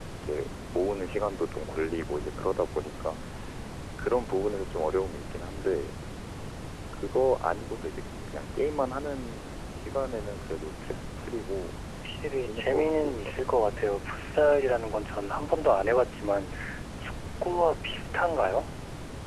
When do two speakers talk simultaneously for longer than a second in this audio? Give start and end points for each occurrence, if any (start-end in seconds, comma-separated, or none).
12.3-13.5